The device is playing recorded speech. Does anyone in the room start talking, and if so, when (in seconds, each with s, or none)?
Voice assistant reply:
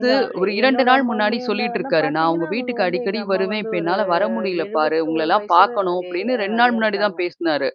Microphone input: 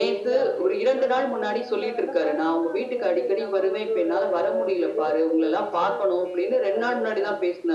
none